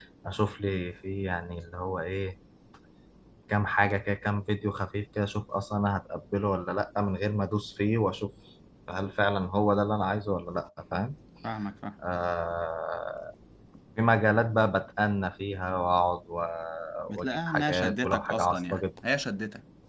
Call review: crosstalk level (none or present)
present